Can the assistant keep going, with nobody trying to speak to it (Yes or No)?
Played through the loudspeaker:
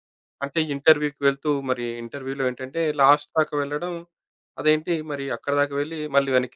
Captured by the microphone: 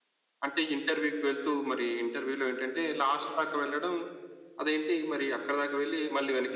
Yes